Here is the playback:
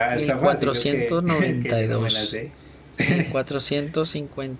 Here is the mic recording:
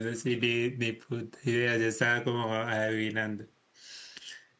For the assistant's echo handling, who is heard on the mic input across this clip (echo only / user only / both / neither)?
user only